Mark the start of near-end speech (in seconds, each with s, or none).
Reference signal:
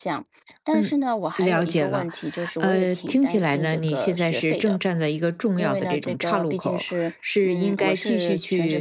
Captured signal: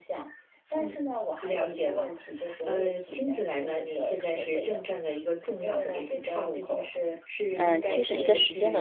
7.5 s